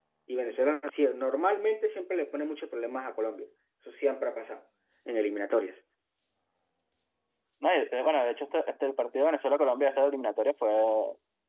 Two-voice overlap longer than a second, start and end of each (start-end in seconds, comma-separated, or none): none